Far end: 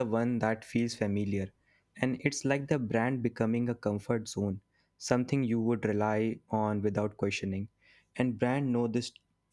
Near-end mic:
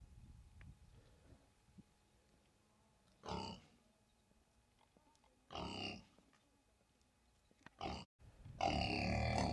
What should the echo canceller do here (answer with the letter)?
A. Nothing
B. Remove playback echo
A